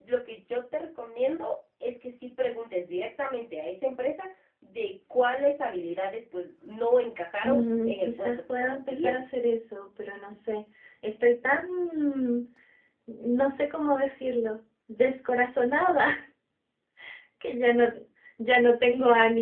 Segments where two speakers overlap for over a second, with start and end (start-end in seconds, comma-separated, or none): 7.4-9.2